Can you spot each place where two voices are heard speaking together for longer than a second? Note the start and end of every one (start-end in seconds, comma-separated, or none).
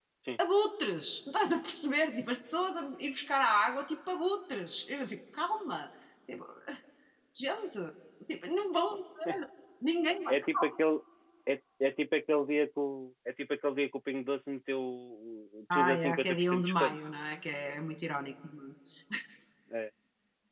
15.7-17.0